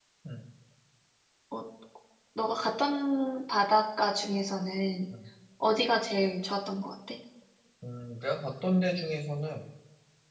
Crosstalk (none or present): none